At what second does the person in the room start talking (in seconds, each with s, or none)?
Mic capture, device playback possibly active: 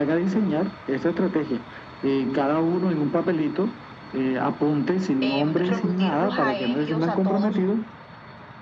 5.2 s